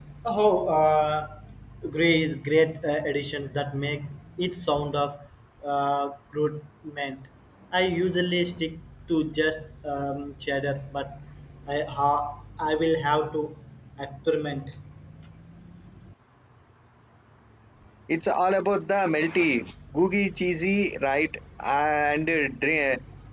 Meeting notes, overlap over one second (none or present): none